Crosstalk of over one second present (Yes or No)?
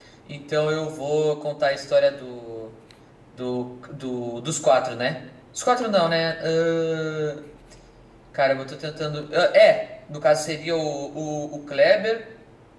No